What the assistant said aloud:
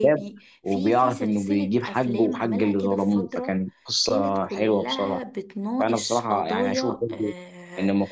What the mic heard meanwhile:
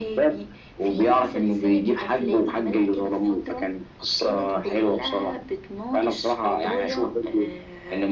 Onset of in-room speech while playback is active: none

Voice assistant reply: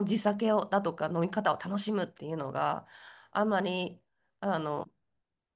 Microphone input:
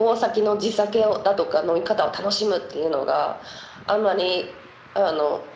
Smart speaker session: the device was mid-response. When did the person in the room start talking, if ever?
none

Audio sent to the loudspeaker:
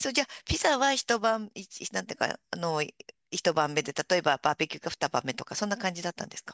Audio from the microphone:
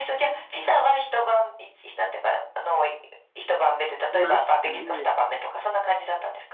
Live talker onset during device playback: 4 s

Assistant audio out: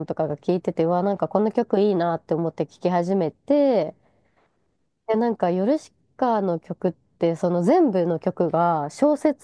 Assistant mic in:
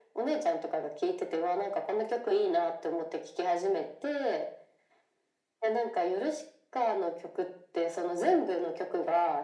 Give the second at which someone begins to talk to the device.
none

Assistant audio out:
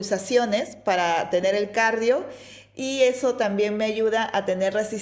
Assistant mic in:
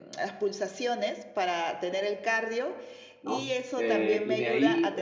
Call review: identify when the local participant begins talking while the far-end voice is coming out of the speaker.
3 s

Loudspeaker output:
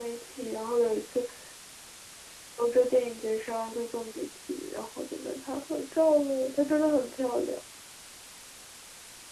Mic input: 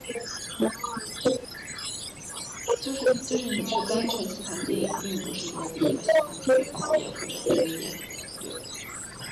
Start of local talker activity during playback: 3 s

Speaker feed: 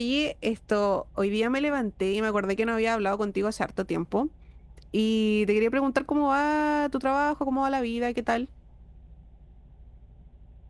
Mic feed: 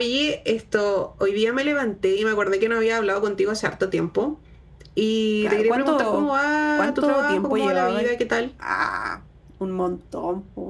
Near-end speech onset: 5 s

